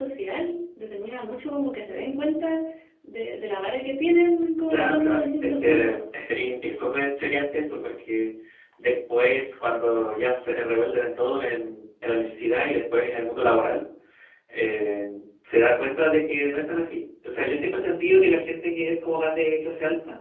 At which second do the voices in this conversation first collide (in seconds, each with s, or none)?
4.7 s